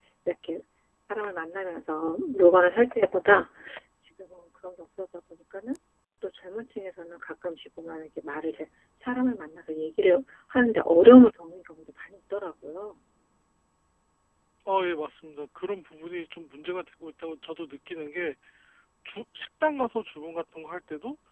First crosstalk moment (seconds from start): none

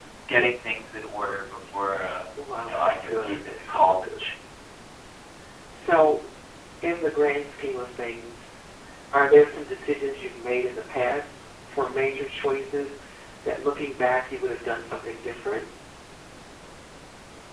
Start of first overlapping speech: 2.6 s

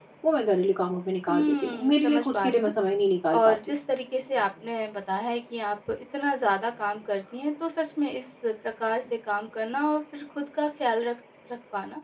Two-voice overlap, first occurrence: 1.3 s

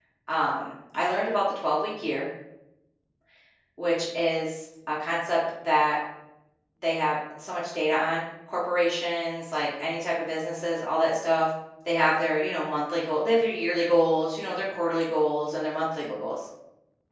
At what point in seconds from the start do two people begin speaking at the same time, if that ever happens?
none

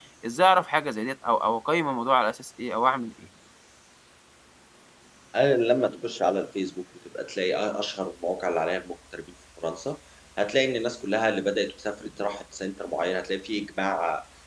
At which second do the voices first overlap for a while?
none

